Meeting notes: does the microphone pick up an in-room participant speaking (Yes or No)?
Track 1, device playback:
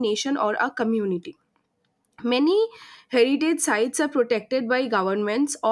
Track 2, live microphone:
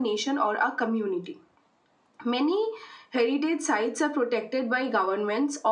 No